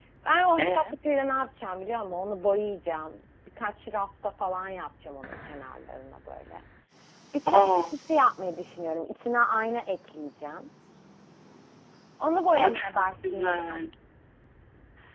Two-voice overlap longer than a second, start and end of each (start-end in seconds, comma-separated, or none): 12.6-13.9